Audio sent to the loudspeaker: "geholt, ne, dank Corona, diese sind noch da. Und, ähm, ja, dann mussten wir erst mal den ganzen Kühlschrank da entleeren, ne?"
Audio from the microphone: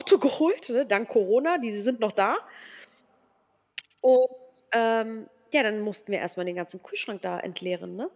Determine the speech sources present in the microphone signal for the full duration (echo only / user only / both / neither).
echo only